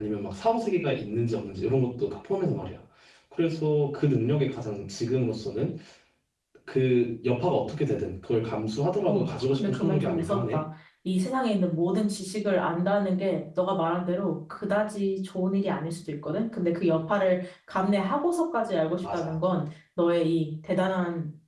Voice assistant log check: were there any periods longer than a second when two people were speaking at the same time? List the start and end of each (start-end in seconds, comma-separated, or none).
9.1-10.6